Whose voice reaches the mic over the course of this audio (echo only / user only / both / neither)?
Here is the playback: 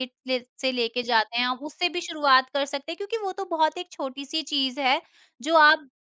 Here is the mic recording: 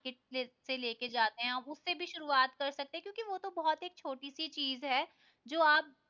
echo only